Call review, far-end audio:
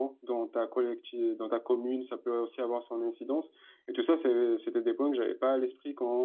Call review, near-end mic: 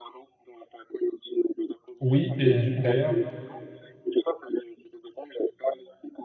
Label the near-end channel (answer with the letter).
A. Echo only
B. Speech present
B